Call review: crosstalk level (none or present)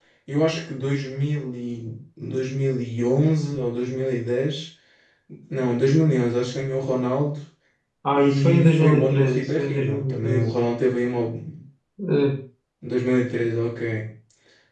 present